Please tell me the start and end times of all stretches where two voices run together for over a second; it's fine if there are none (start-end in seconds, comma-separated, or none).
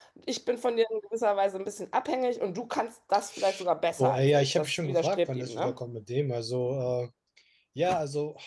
4.0-5.7